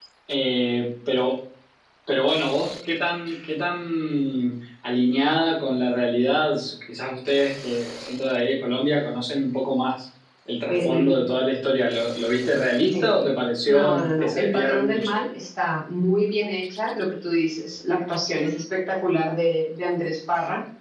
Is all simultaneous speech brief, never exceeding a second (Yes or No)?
No